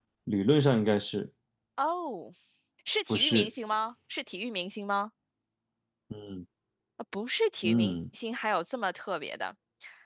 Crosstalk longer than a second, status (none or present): none